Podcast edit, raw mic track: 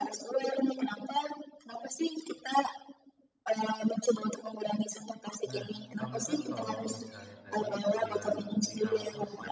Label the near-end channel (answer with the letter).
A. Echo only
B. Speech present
B